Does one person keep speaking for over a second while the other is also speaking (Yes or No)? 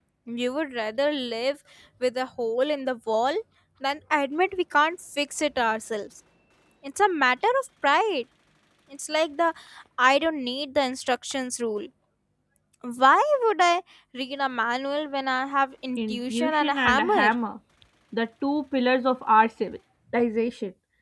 Yes